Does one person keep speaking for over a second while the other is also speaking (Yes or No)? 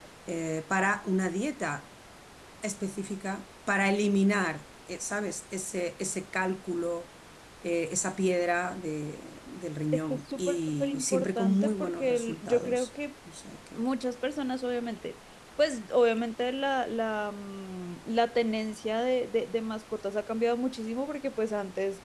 Yes